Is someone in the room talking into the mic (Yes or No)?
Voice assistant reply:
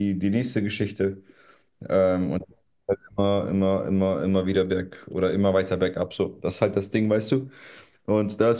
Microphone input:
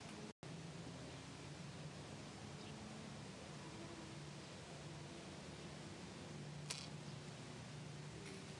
No